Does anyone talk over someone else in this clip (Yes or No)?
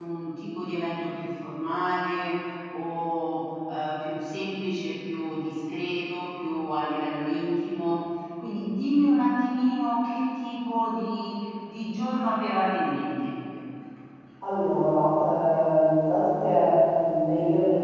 No